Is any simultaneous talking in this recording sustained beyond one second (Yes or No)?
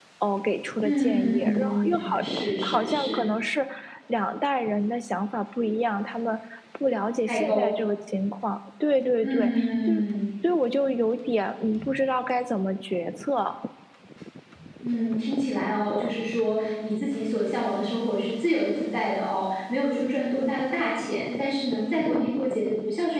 Yes